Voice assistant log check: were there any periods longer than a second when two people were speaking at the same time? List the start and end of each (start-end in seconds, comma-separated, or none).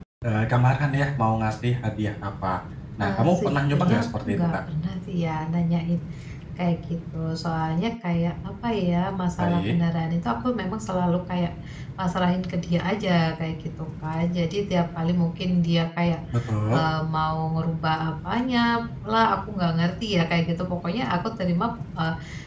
3.0-4.6